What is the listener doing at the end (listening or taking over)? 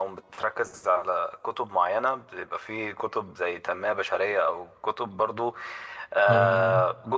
listening